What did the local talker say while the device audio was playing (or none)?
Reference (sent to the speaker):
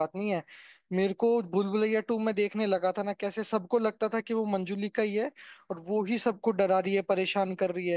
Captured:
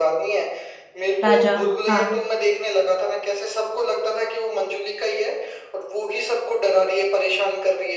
राजा हाँ